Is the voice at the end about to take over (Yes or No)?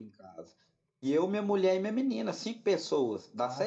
Yes